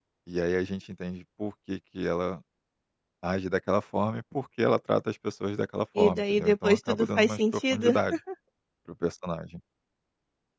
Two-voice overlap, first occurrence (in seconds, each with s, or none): 6.0 s